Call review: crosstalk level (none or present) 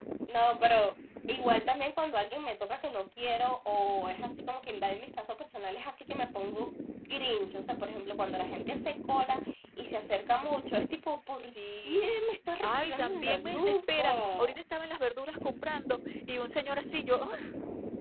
present